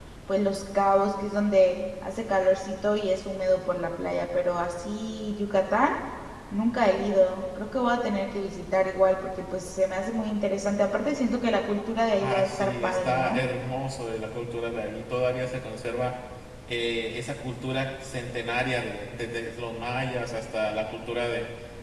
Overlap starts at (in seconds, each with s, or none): 12.2 s